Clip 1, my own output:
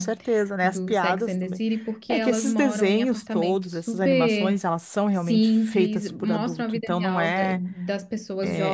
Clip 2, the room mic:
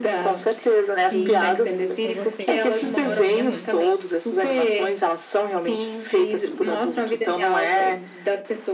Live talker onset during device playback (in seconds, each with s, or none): 1.1 s